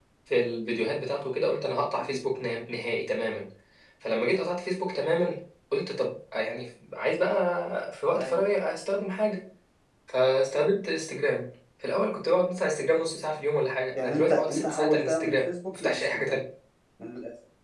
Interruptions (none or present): present